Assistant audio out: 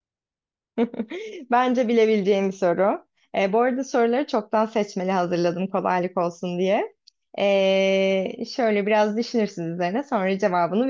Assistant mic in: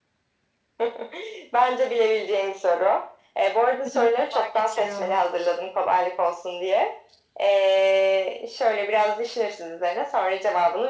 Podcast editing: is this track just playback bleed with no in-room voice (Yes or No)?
No